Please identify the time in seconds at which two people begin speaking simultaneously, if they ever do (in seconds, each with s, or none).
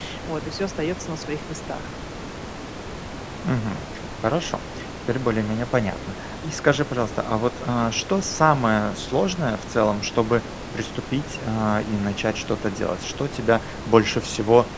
none